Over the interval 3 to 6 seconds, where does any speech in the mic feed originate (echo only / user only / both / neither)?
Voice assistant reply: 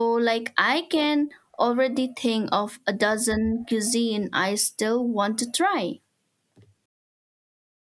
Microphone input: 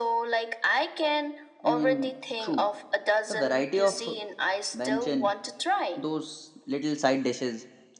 both